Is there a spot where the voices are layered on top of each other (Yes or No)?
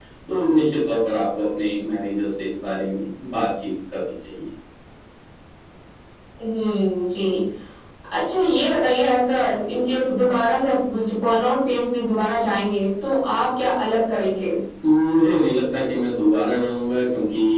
No